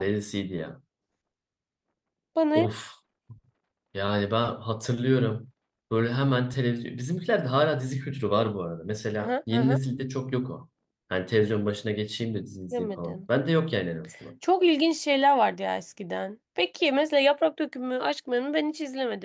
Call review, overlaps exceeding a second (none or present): none